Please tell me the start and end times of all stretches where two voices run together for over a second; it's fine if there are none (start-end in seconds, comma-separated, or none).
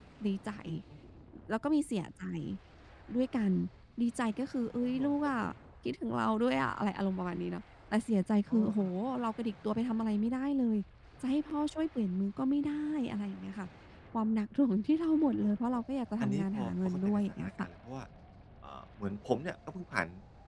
16.2-17.5